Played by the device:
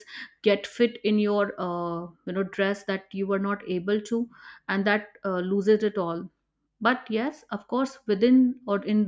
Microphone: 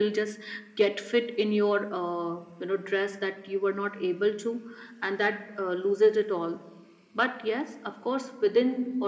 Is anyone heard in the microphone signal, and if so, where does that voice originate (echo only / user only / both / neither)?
echo only